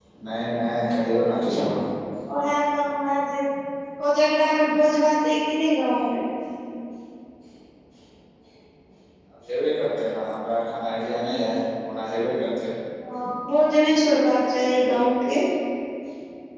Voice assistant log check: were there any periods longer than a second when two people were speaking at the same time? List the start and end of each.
none

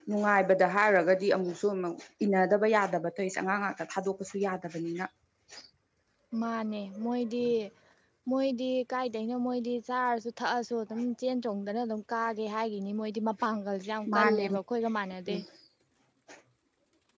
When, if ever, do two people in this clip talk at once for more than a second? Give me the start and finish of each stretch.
none

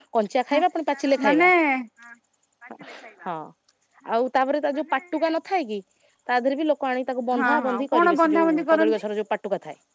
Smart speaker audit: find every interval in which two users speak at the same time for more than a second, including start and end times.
7.4-9.0

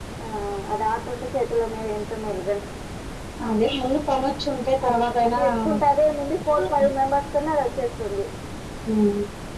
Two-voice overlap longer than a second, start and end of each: none

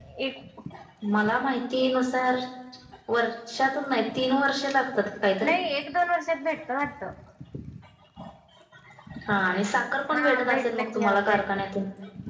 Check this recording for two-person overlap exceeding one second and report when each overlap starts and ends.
10.1-11.6

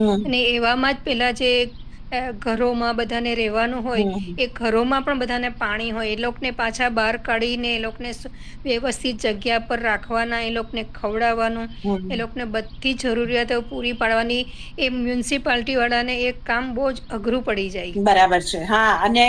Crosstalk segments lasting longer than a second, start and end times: none

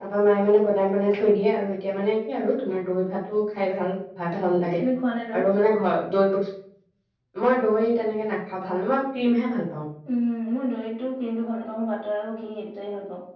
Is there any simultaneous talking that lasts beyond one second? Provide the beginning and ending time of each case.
none

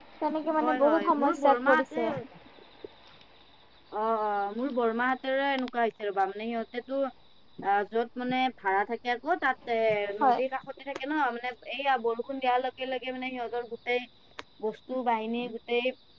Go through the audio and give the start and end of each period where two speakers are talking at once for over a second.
0.6-2.0

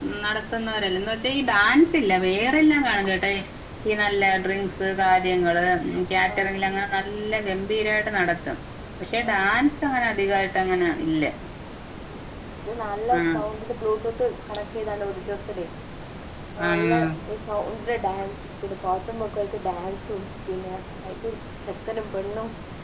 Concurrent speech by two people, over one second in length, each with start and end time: none

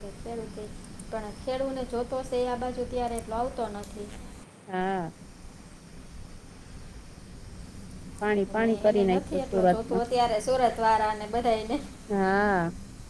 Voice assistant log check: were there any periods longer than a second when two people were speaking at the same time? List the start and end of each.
8.5-10.0

